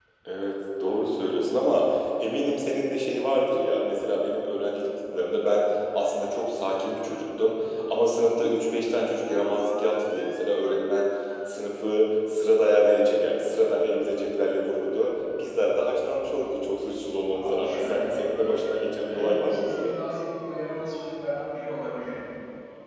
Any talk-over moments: Yes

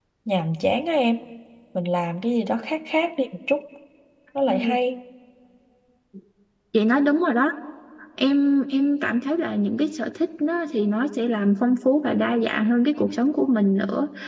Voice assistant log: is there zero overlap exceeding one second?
Yes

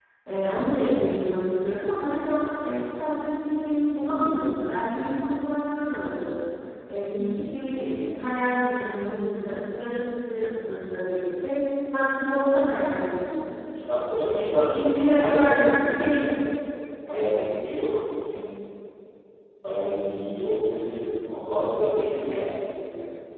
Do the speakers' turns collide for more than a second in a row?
Yes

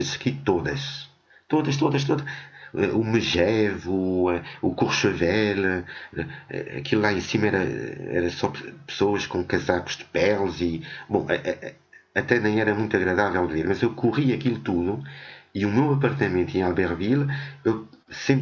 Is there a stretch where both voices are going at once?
No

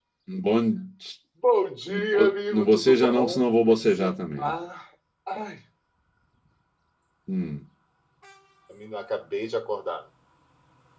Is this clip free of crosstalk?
No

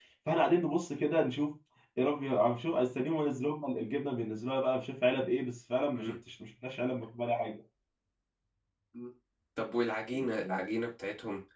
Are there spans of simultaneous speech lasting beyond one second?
No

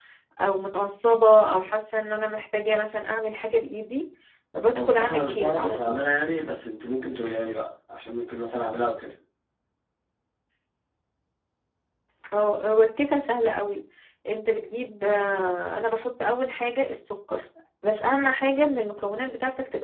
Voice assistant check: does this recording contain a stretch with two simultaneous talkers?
Yes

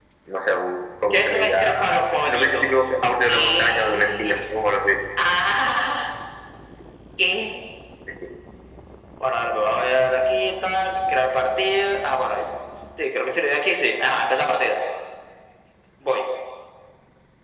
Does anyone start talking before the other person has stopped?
Yes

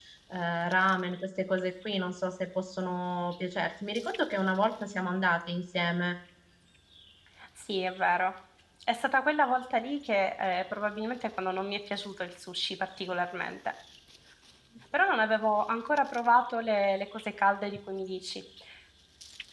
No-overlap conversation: Yes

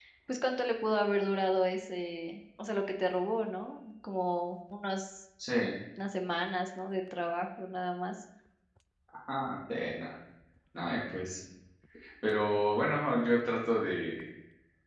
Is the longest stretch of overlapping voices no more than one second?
Yes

